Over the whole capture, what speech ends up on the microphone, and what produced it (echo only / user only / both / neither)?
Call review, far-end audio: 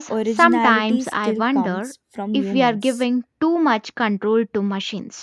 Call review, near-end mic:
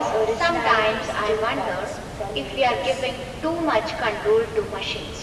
echo only